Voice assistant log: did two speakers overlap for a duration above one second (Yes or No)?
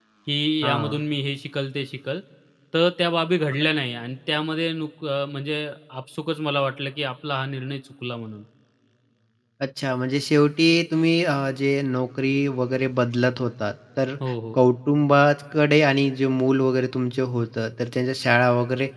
No